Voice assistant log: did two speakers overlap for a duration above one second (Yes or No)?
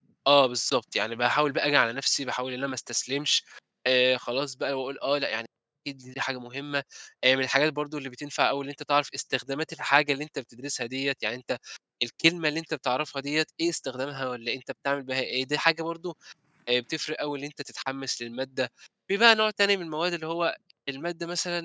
No